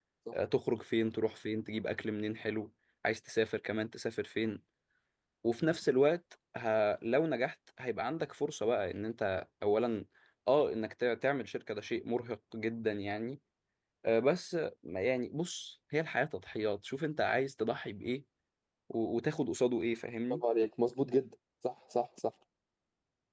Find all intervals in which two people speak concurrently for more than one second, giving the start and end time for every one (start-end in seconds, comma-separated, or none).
none